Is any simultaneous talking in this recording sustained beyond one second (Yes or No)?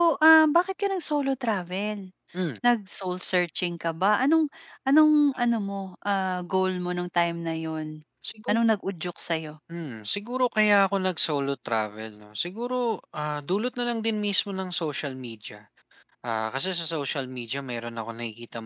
No